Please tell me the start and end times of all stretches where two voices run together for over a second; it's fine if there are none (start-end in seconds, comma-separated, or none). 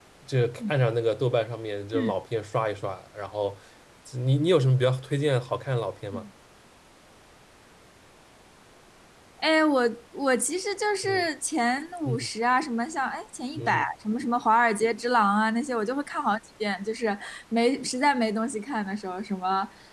none